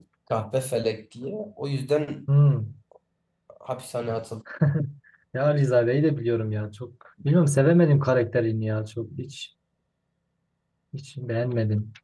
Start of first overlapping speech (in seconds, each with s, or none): none